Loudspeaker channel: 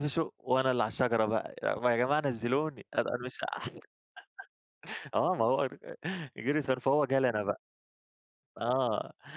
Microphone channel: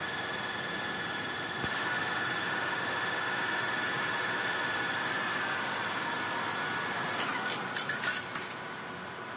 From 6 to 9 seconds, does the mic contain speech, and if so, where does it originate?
neither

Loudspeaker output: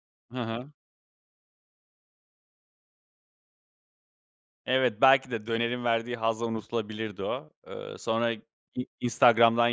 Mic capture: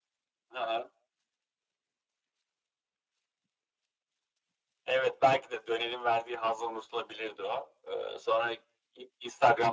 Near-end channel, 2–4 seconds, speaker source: neither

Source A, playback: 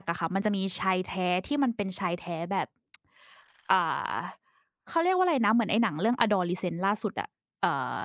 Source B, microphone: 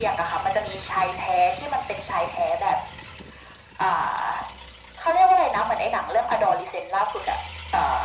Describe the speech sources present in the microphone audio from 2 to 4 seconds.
echo only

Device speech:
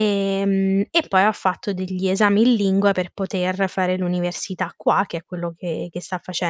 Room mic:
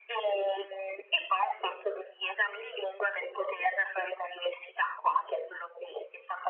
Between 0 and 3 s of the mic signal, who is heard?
echo only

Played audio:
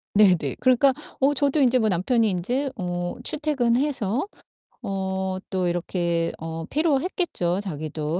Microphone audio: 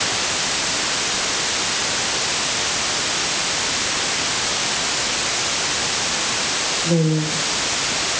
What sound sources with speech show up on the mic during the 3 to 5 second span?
neither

